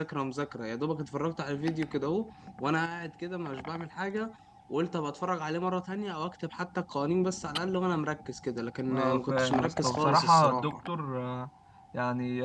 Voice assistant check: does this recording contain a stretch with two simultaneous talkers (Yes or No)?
Yes